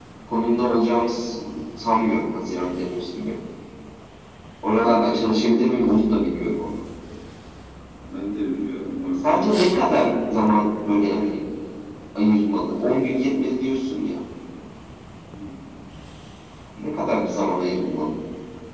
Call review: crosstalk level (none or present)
present